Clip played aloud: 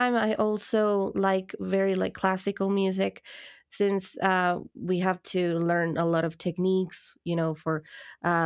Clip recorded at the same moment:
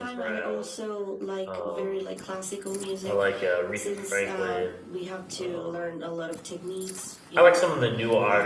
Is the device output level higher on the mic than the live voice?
No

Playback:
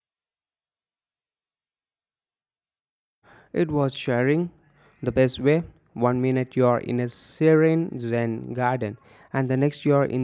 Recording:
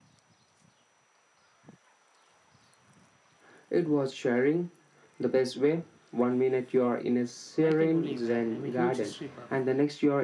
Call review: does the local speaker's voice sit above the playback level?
No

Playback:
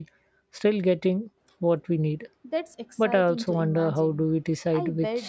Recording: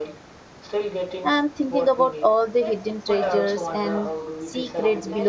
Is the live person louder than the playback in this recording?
Yes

